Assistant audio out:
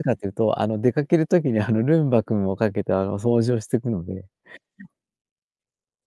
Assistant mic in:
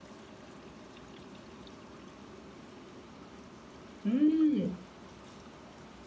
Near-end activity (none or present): present